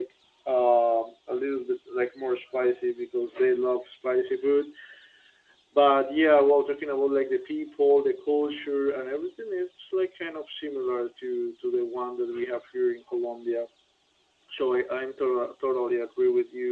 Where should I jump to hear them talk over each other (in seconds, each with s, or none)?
none